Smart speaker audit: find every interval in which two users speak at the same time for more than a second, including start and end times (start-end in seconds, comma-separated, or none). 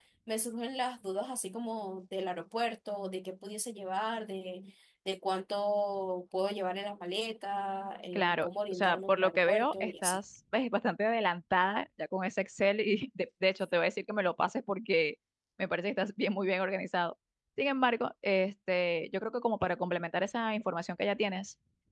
8.1-10.2